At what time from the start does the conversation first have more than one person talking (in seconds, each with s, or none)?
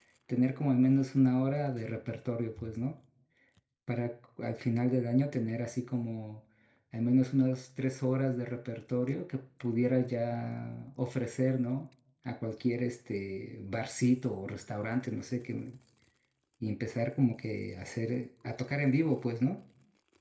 none